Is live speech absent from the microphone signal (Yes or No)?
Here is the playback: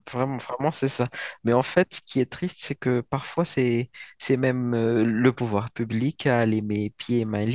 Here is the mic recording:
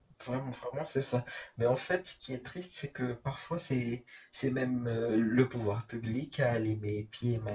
Yes